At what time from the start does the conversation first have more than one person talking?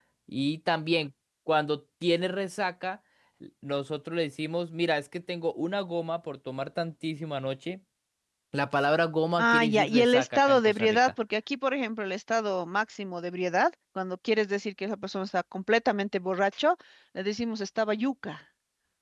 9.4 s

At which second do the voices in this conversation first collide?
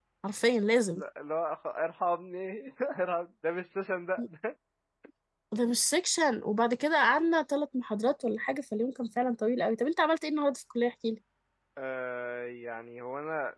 none

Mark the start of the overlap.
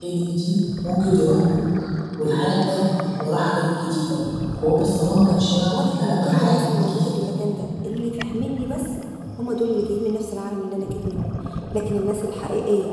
5.7 s

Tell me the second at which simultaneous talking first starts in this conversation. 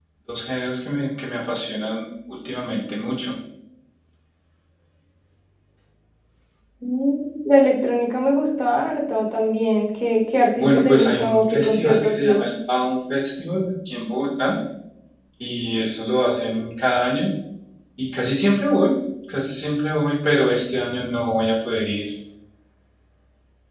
10.6 s

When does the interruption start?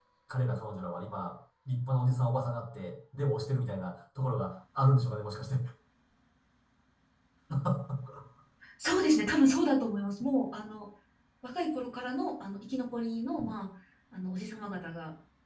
none

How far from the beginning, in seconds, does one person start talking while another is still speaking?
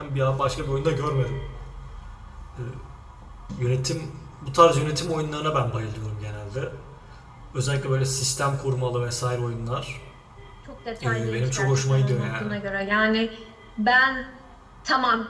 11.0 s

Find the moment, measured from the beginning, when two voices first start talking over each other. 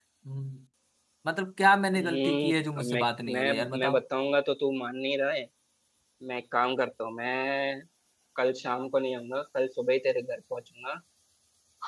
2.0 s

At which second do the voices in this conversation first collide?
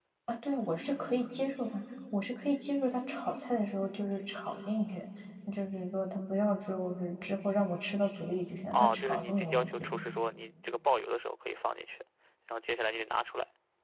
8.7 s

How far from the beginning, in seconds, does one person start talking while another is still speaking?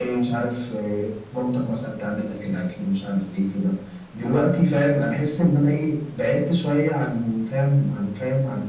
none

